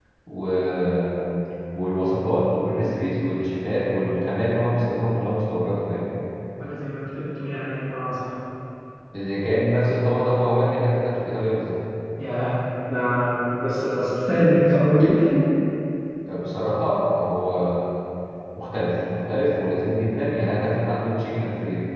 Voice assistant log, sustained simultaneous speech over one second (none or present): none